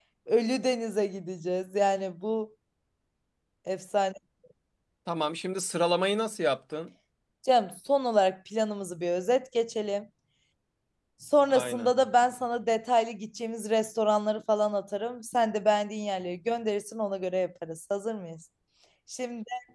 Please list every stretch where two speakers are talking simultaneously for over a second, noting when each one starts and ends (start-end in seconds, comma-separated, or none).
none